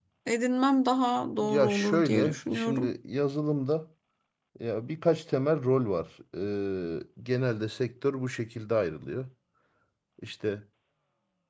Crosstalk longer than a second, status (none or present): present